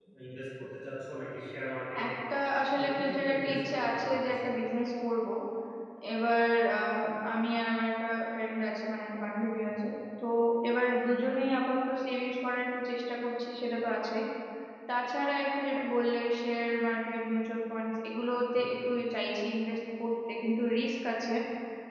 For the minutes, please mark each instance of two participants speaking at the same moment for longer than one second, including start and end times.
2.7-4.3

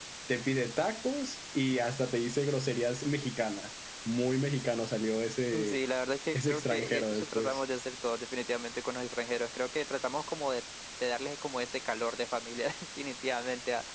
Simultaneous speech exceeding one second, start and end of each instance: 6.3-7.6

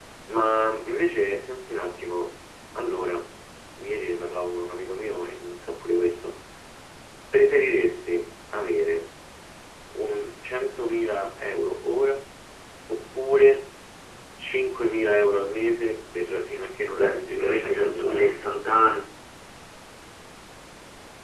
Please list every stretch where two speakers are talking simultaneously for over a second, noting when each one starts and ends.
16.9-18.4

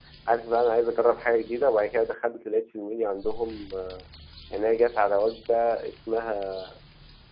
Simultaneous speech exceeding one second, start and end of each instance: none

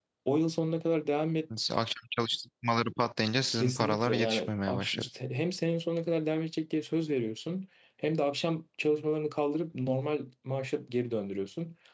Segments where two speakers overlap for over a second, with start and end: 3.5-5.1

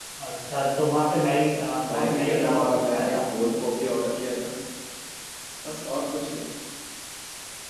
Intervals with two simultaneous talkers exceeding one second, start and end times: 1.9-3.2

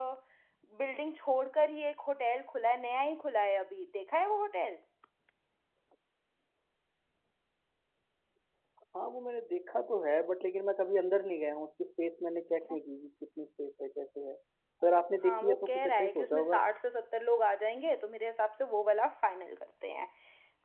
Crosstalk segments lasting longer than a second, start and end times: 15.2-16.6

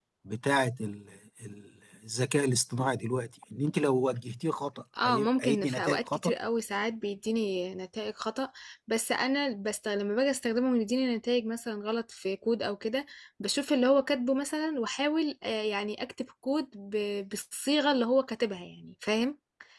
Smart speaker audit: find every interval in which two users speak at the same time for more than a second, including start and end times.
5.0-6.3

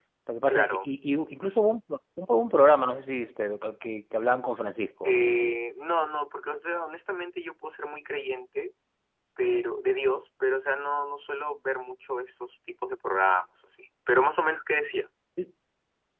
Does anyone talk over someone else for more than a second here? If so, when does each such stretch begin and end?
none

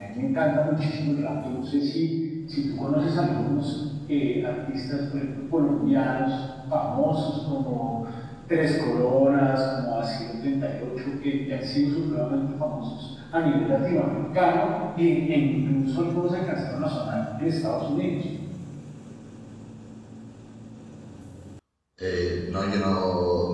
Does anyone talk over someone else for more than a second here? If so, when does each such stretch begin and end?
none

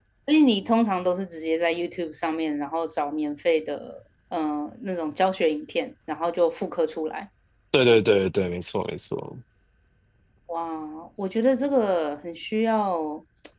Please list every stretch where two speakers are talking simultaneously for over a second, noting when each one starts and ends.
none

